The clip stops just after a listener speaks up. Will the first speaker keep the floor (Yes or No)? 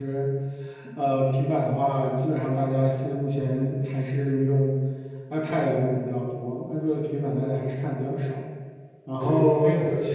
No